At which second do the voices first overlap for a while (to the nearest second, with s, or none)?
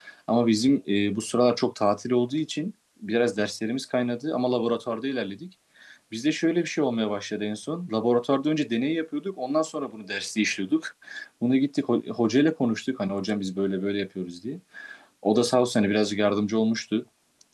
none